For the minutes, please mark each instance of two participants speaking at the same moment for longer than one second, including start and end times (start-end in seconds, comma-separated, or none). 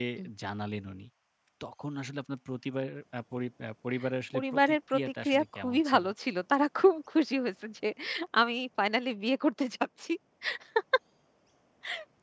4.3-6.0